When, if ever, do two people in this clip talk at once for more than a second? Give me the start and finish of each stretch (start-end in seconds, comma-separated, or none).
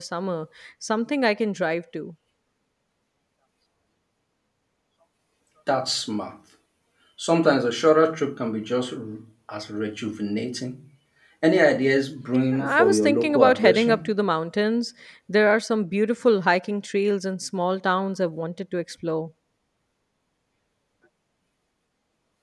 12.6-14.0